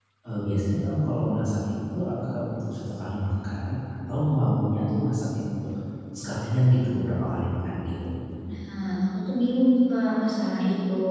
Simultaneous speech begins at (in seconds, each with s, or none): none